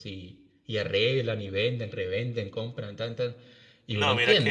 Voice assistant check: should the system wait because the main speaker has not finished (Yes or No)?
No